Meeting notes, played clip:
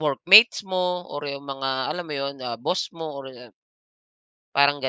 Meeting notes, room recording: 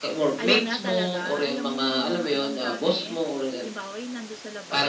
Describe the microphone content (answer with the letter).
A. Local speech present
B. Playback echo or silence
A